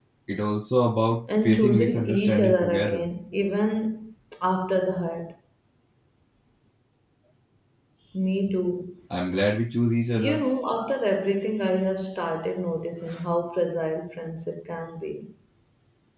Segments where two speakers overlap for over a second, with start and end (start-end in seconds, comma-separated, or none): 1.4-3.1